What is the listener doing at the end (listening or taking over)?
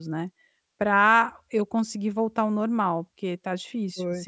taking over